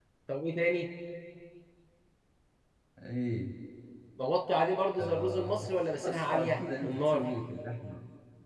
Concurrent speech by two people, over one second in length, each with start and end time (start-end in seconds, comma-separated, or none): 5.0-7.3